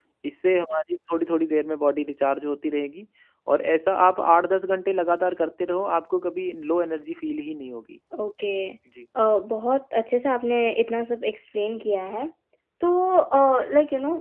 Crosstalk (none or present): none